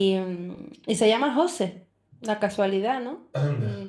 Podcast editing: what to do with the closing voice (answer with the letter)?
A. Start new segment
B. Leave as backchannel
B